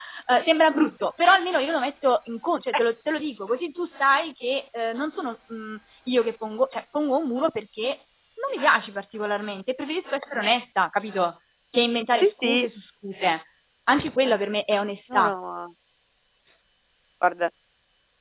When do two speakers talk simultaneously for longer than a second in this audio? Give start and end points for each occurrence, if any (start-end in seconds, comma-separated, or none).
none